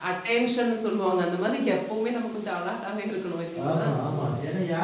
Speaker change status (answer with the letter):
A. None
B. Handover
B